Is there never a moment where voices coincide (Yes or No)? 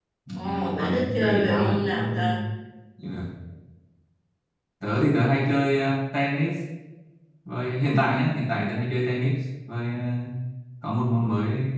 No